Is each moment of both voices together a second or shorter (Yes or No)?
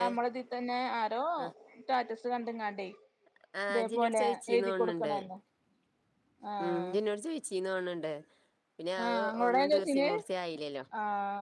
No